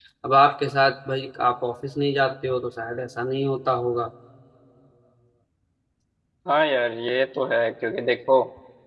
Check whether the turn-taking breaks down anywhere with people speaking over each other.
No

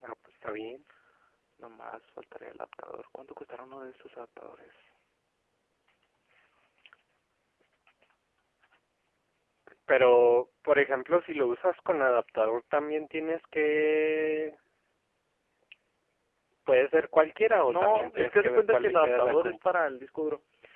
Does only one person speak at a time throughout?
No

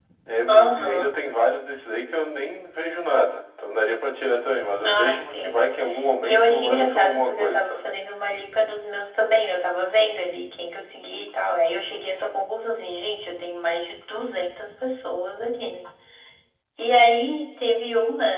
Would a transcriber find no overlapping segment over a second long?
No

